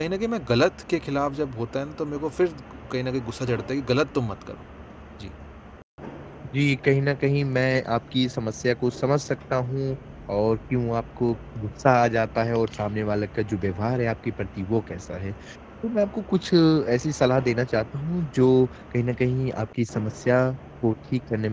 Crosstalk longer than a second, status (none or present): none